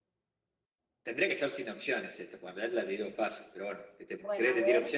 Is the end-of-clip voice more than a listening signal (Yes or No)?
Yes